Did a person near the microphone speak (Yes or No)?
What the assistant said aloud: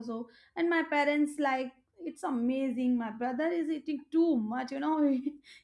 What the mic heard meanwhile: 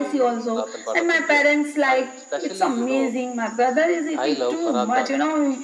Yes